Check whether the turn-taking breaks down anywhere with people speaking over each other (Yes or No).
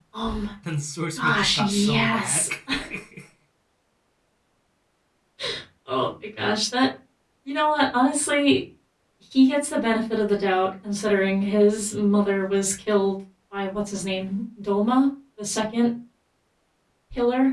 Yes